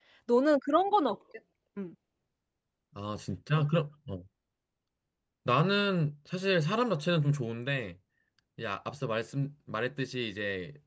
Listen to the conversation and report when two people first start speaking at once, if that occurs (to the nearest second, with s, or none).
none